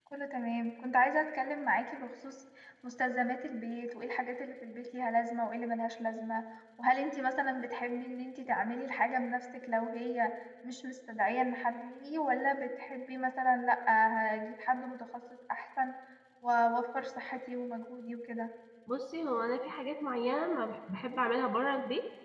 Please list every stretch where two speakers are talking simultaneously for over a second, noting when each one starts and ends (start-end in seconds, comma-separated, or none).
none